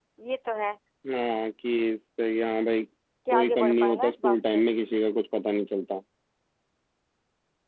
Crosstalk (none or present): present